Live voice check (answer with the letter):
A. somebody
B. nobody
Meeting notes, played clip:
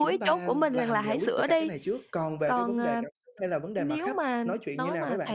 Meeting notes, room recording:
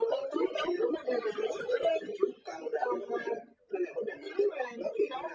B